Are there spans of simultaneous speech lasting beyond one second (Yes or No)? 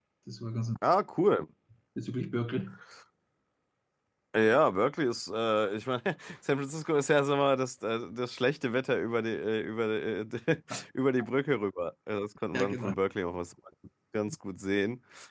No